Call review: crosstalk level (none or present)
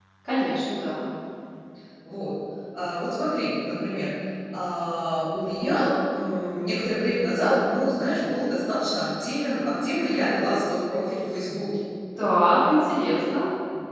none